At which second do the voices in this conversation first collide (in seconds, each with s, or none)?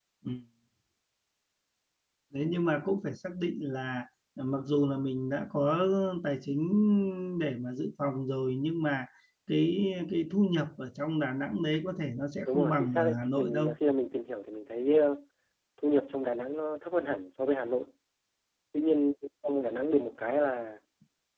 12.4 s